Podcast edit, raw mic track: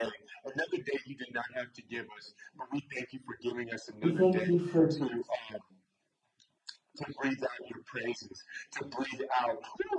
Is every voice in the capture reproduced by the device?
No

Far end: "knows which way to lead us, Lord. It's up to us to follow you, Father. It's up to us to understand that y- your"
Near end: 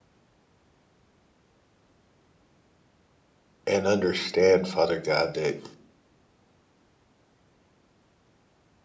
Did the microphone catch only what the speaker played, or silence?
No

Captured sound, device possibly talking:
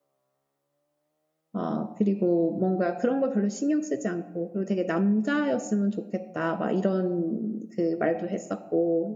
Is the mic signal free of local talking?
No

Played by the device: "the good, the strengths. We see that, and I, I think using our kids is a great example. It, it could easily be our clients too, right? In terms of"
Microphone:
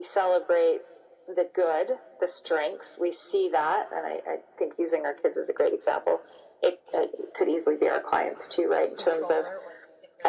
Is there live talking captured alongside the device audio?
Yes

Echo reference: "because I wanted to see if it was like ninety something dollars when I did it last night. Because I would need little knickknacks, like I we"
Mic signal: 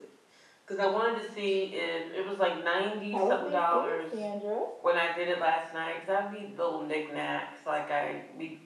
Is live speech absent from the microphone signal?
No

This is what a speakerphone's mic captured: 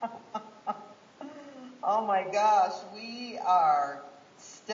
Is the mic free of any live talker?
No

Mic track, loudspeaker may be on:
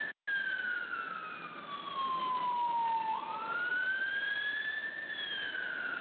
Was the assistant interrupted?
No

